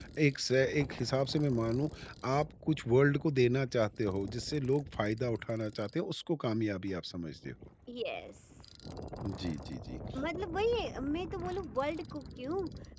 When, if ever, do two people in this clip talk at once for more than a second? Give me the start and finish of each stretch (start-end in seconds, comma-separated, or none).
none